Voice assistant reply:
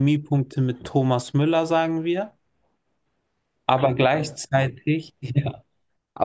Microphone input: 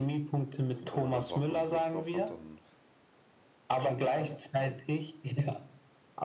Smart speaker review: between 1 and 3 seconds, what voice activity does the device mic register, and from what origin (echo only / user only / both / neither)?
both